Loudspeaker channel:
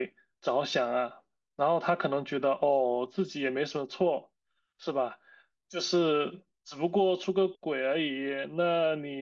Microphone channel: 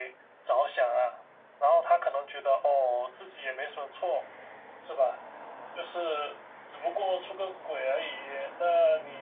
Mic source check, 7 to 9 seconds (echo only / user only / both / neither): echo only